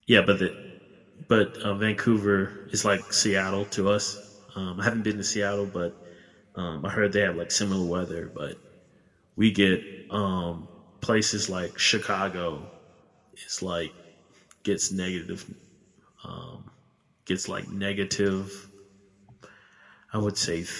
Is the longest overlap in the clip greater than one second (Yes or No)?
No